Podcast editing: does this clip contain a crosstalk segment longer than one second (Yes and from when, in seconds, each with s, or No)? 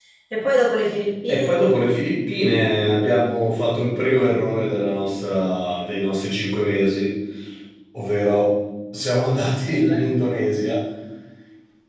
No